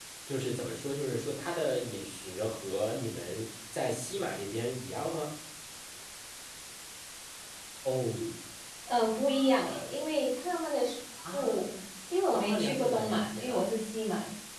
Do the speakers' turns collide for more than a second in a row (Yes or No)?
Yes